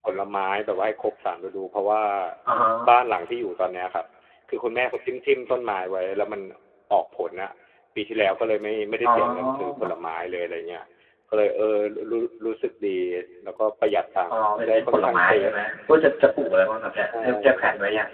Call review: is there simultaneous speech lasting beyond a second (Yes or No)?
Yes